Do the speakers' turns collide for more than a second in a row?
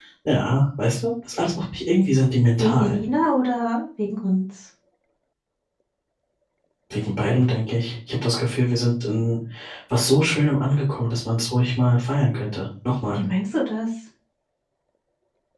No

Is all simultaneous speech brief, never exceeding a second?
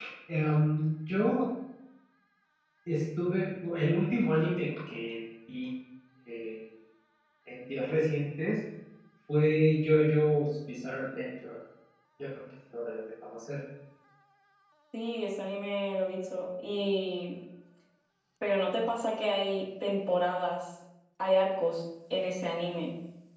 Yes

